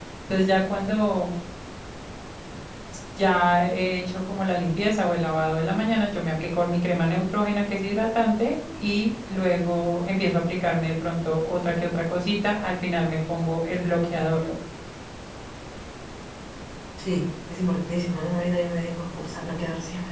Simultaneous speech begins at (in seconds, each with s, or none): none